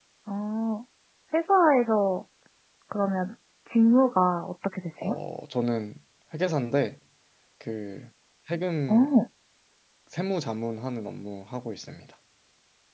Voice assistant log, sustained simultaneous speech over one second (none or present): none